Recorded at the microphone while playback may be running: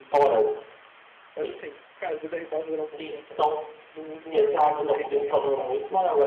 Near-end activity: present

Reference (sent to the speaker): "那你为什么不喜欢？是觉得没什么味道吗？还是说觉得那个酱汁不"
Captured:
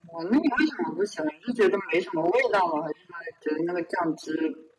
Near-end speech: none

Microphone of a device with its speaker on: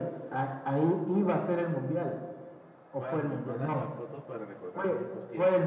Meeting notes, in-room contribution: present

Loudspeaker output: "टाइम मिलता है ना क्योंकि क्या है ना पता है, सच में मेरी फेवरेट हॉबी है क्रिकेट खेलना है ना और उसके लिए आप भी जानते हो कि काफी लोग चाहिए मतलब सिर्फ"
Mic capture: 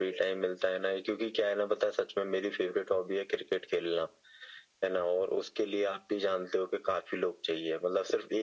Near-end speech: none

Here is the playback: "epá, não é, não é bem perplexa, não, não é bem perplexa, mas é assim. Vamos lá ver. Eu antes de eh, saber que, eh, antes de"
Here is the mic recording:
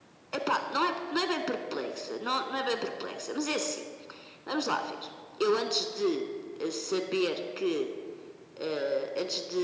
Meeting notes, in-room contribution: none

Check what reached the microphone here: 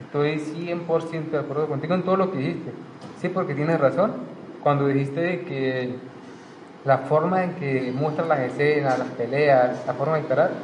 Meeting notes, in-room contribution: present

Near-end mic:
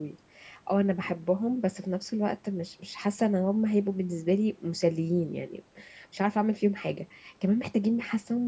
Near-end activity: present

